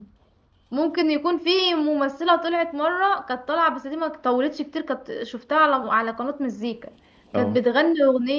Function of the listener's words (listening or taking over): listening